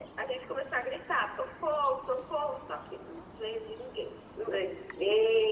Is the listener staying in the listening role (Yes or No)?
Yes